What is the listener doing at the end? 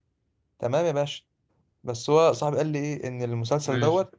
listening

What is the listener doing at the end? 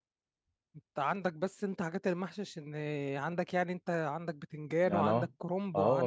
taking over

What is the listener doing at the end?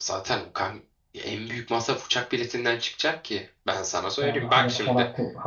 taking over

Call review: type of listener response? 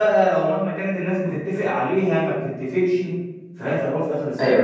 taking over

